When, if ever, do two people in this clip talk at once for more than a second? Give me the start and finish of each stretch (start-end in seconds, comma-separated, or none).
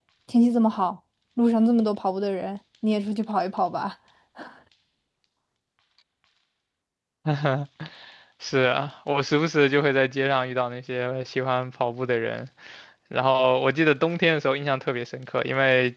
none